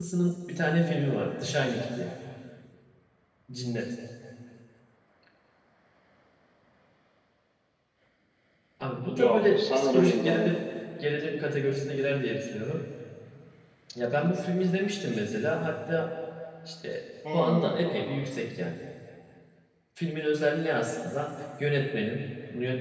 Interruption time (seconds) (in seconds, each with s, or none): 9.1 s